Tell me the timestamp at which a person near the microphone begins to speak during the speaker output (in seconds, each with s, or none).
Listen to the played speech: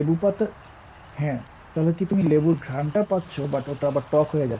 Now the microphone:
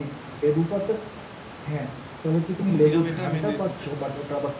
2.8 s